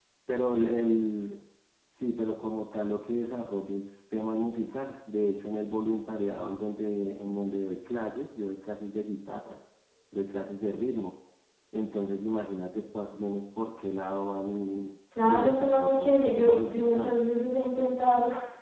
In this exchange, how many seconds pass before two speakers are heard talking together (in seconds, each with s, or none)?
15.1 s